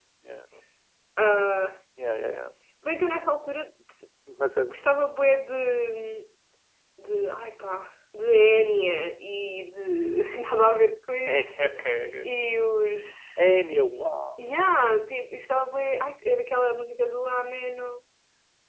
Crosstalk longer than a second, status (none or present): none